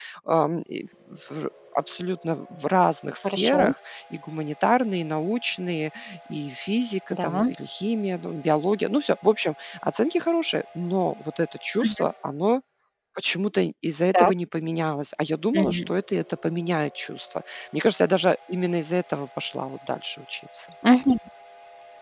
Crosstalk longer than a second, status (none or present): none